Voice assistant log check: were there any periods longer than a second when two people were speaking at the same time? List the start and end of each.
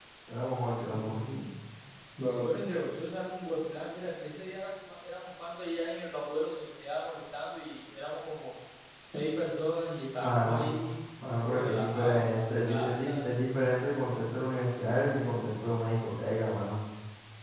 11.5-13.2

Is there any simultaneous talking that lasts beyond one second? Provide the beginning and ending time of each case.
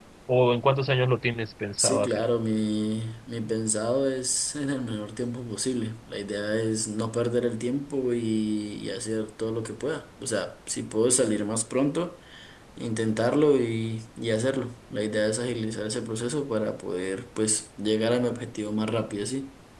none

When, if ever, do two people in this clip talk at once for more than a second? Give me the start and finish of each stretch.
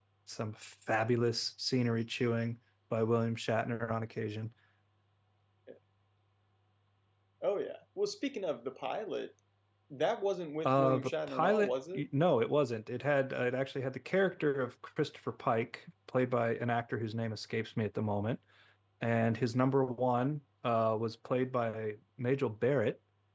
10.7-12.0

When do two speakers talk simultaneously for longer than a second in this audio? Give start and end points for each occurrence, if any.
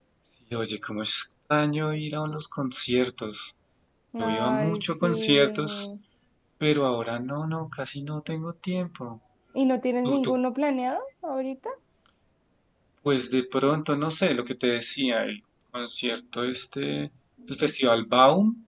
4.2-5.8

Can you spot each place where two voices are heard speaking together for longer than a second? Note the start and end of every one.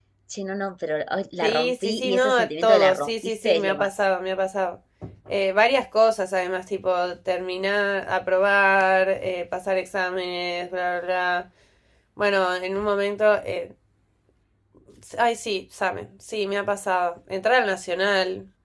1.4-3.9

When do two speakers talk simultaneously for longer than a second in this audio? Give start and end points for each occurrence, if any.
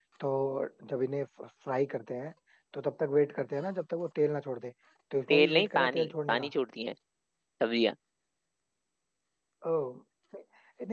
5.3-6.5

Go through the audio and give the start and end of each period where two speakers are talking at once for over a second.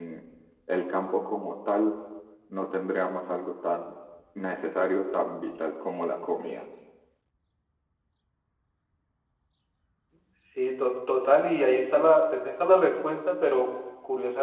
none

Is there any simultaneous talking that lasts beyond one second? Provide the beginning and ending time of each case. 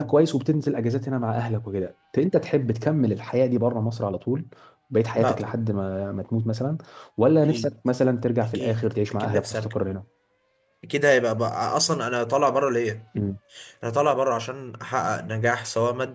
8.4-9.8

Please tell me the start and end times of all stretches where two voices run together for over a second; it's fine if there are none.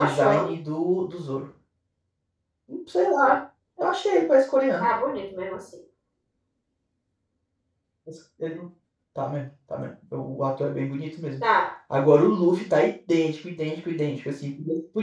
none

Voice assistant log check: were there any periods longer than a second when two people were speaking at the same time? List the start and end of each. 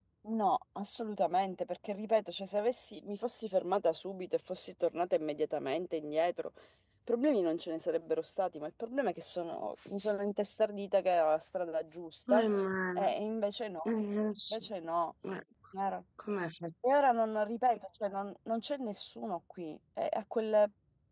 none

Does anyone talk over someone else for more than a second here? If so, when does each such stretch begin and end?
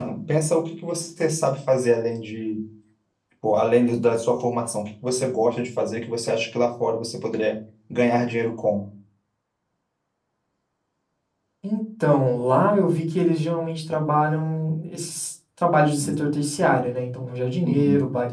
none

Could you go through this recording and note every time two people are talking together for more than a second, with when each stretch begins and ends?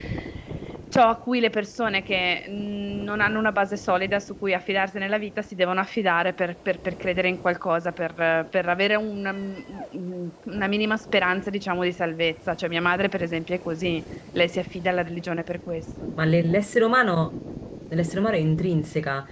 none

